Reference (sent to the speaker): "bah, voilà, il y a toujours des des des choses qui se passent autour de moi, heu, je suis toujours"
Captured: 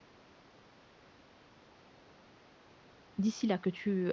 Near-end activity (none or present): present